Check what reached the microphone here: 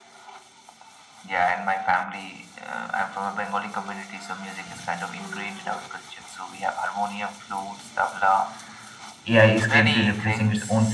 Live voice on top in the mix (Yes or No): Yes